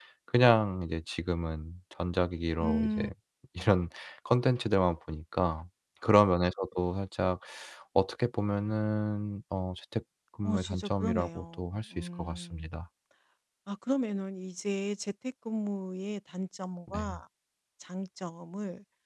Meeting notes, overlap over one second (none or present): present